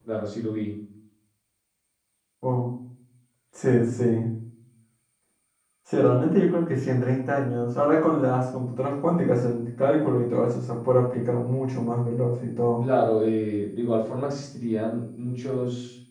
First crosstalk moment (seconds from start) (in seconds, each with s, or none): none